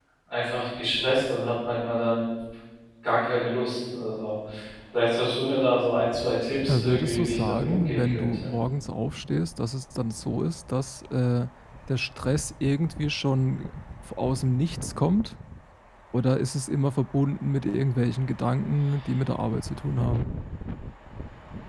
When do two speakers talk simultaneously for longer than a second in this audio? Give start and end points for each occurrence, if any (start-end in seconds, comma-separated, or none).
6.7-8.5